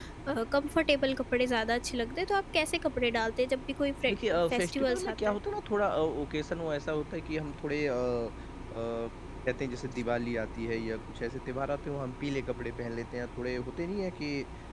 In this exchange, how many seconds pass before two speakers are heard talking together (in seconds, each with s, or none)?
4.1 s